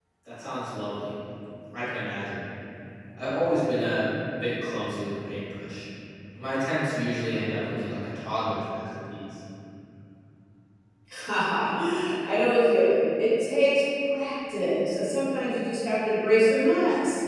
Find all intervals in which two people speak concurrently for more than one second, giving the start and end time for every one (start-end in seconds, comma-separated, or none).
none